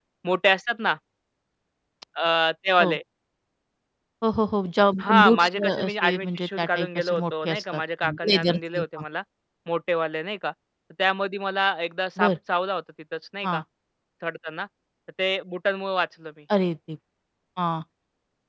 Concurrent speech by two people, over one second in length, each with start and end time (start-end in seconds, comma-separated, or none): 5.0-9.0